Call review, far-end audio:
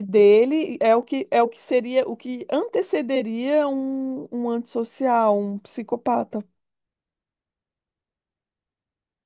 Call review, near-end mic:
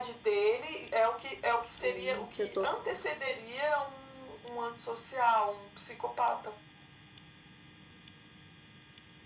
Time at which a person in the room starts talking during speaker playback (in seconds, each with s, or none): 1.8 s